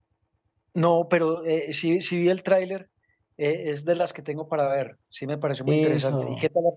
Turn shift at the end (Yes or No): Yes